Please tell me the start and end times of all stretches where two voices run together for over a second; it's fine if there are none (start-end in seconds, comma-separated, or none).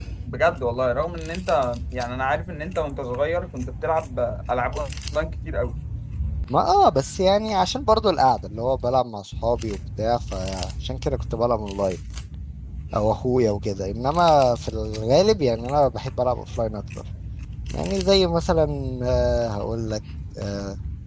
none